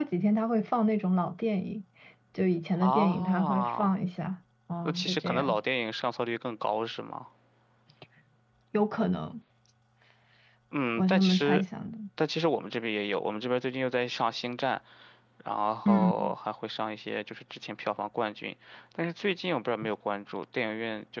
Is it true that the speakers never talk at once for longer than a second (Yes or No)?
No